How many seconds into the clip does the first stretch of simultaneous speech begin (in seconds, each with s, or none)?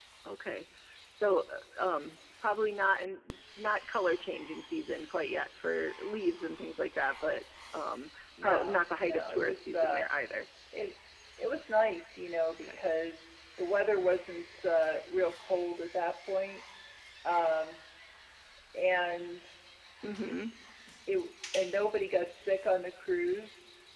8.4 s